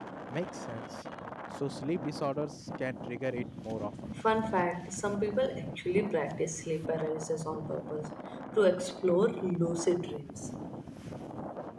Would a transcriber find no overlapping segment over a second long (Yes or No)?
Yes